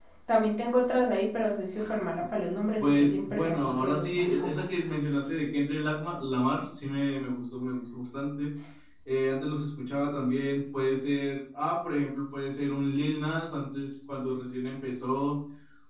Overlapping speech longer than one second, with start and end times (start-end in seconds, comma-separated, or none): 2.8-4.8